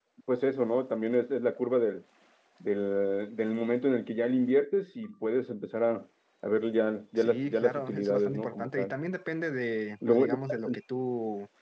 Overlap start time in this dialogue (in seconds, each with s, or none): 7.2 s